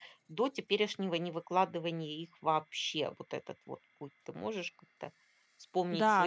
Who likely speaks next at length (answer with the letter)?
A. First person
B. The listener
B